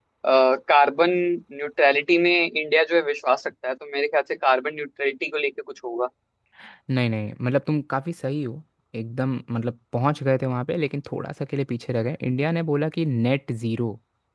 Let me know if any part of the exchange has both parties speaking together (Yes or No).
No